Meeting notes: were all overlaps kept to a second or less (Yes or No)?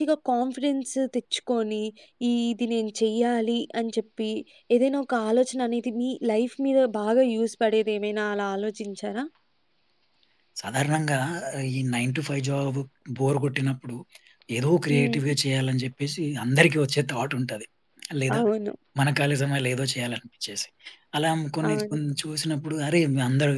Yes